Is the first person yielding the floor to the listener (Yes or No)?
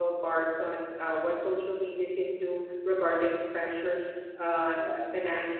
No